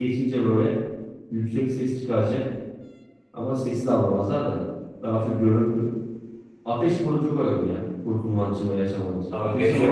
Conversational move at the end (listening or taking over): taking over